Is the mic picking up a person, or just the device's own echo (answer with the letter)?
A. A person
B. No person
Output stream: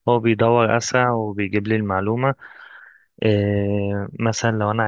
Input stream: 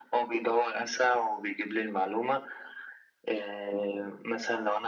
B